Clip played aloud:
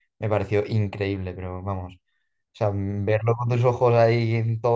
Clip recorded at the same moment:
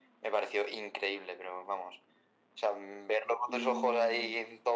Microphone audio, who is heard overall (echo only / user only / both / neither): both